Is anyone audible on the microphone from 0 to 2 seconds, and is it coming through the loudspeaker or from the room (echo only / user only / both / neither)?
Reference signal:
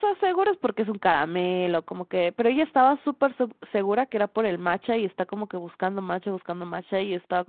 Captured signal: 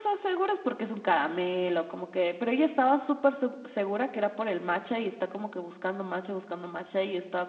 echo only